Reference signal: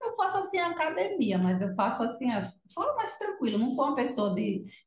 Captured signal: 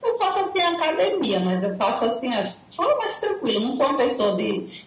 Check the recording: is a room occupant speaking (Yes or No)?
No